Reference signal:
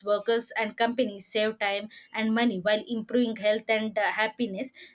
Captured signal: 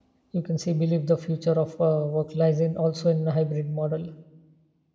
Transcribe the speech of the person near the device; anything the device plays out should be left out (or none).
you can see believe the future of uh, work lies in also in a hybrid model